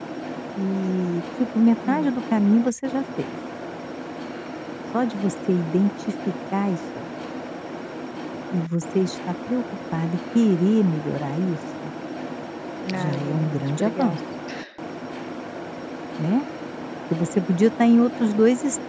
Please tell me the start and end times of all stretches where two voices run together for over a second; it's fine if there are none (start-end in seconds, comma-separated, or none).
12.9-14.2